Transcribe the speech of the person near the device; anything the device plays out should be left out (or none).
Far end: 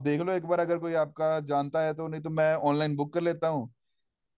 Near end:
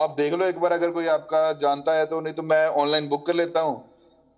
none